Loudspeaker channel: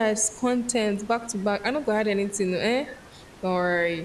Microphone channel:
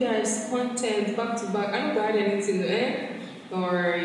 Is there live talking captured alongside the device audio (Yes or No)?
No